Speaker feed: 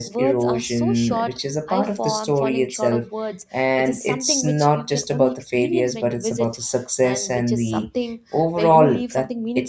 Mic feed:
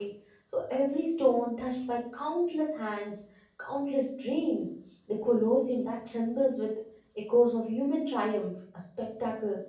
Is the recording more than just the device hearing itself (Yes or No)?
Yes